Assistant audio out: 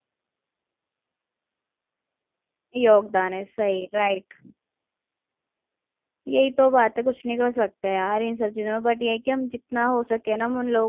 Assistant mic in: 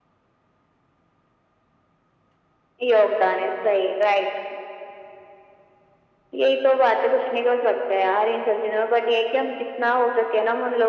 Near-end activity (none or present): none